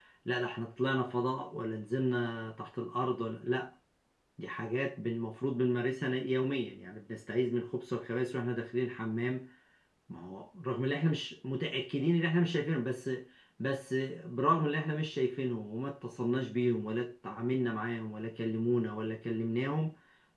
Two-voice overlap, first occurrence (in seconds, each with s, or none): none